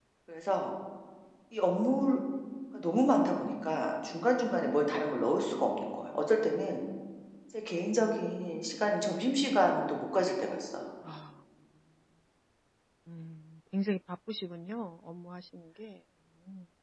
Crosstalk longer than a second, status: none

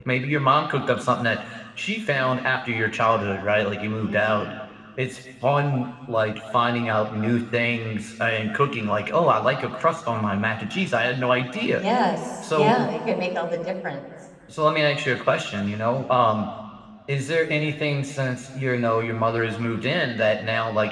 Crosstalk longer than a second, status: none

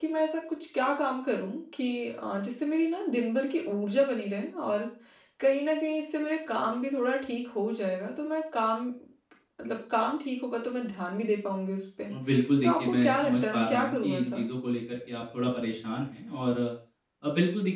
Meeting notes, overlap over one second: present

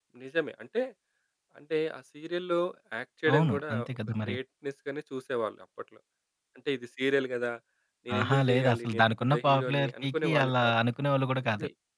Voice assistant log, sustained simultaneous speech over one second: present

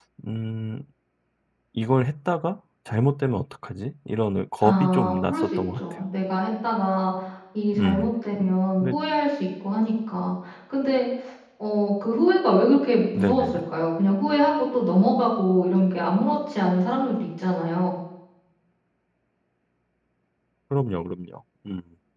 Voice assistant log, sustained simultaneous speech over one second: present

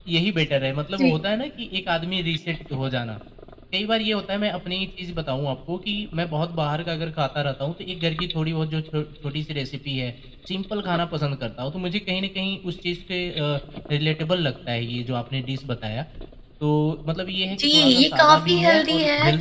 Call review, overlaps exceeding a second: present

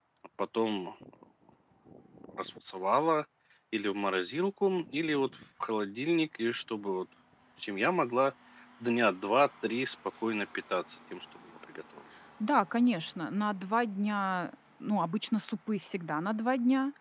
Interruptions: none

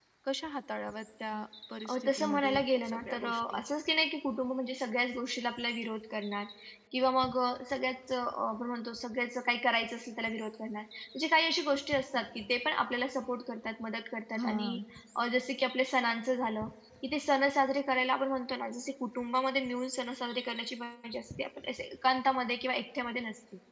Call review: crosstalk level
present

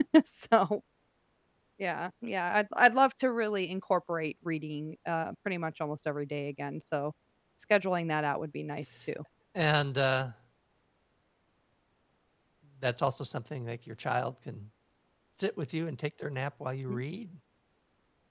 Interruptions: none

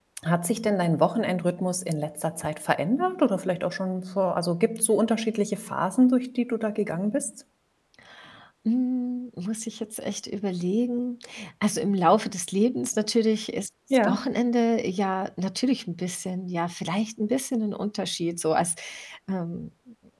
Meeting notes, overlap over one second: none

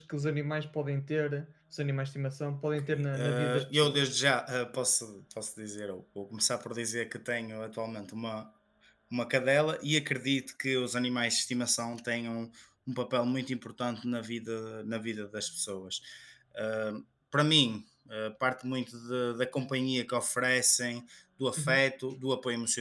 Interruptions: present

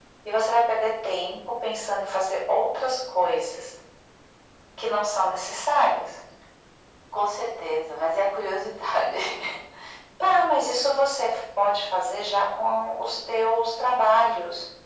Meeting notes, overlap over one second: none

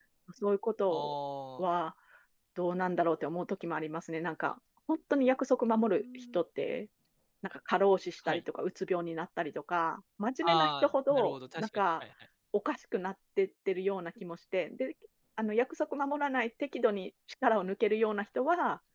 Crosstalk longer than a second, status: present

